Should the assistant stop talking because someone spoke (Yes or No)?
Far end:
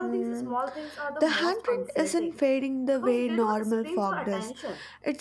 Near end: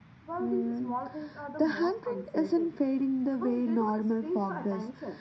No